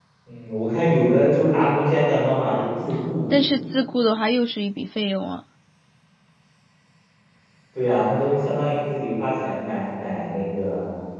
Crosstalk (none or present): none